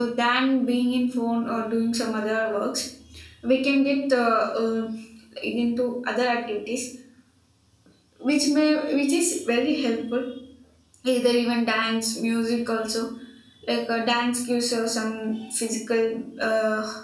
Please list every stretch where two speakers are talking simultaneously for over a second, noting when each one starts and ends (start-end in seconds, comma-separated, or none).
none